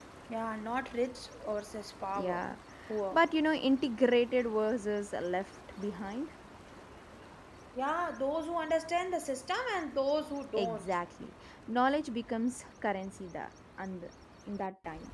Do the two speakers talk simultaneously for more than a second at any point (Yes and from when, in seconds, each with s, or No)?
No